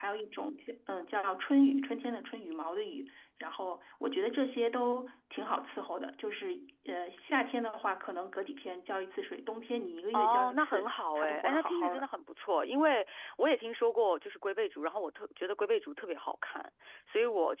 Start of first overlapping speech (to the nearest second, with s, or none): 10 s